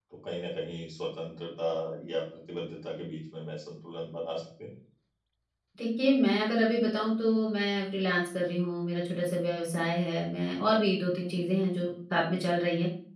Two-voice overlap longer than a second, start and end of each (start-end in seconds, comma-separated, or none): none